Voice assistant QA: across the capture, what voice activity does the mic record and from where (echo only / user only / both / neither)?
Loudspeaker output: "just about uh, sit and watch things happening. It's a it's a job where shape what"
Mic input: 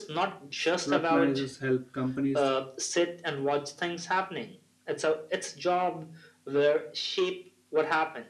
both